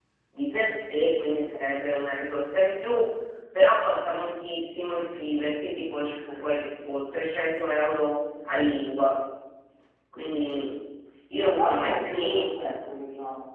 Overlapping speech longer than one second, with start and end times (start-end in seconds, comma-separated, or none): 11.4-12.7